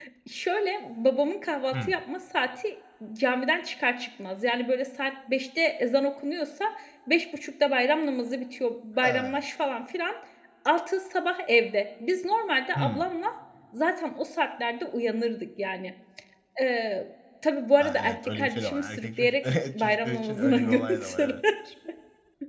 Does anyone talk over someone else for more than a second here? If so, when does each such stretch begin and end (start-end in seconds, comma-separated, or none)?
17.8-21.4